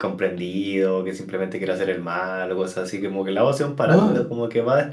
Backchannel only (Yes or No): Yes